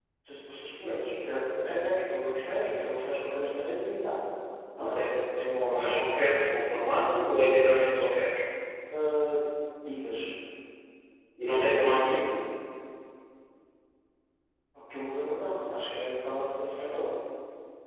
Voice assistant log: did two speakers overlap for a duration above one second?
No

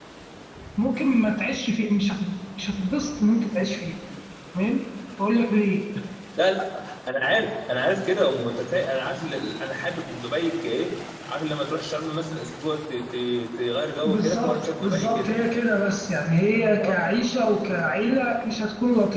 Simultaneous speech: Yes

